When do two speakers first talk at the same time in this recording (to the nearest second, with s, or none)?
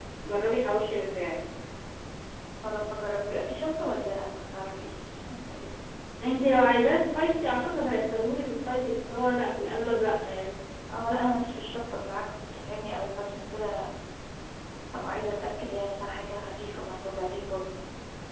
none